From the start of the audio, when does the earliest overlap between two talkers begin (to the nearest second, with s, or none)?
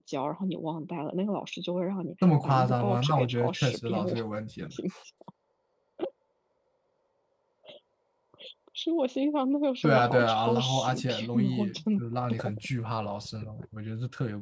2 s